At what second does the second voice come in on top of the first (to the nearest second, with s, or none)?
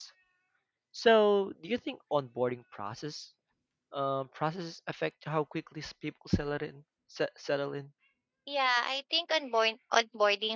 none